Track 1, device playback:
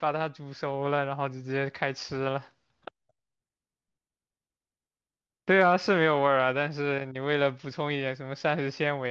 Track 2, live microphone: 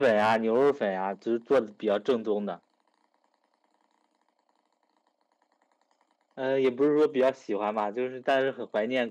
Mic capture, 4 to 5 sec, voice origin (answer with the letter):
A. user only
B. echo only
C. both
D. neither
D